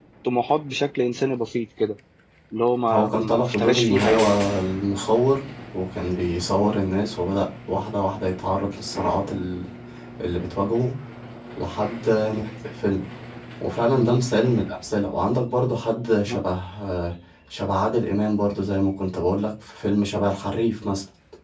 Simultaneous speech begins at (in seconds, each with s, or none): 2.9 s